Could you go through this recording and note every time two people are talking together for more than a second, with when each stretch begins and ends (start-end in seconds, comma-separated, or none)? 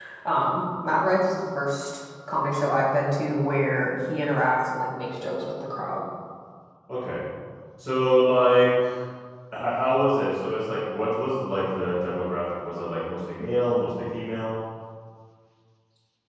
none